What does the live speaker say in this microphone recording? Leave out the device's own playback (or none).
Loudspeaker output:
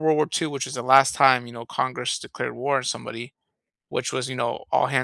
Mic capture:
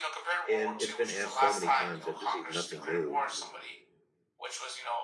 and it's been asked so many times that this is nothing new,